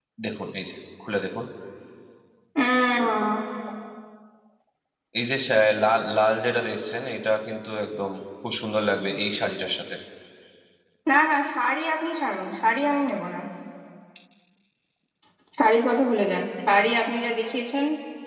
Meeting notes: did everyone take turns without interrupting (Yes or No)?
Yes